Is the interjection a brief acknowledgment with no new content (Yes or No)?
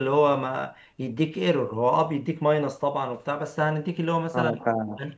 Yes